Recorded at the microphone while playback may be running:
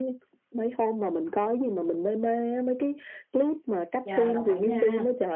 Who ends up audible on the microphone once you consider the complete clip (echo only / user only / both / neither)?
both